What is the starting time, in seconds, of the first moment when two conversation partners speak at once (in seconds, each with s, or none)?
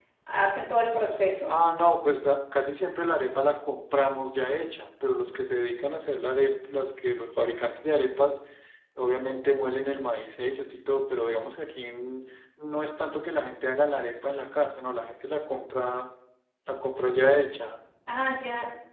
none